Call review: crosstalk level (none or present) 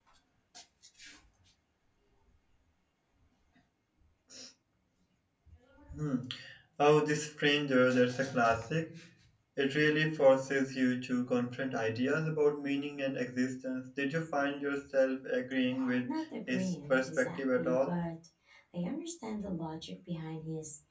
present